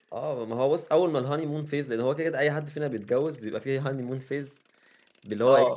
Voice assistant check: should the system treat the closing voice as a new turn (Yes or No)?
No